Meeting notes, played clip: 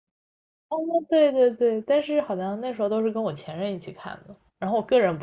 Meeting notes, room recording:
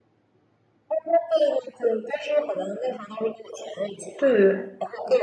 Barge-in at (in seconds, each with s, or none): 4.2 s